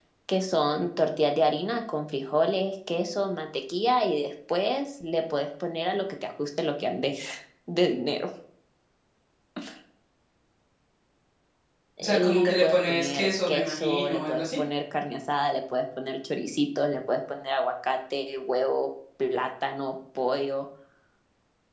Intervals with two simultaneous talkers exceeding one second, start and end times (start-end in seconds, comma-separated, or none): 12.0-14.6